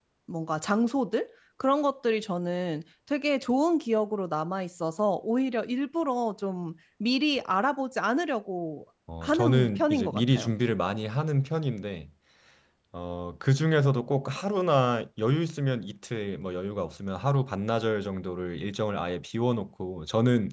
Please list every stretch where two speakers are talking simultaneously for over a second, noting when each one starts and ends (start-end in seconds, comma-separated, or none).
9.2-10.5